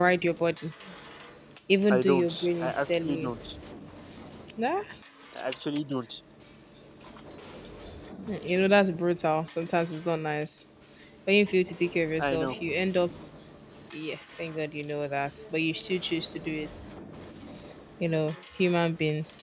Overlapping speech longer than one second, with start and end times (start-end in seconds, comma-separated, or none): 1.9-3.3